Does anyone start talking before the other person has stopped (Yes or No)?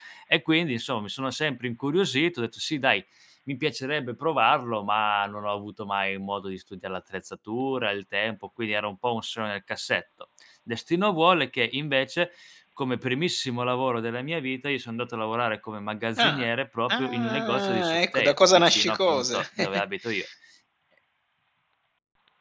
Yes